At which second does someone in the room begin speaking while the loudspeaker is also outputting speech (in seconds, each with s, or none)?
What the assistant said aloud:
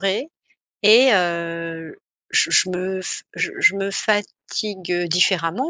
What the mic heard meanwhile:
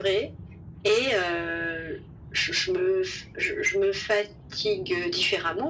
none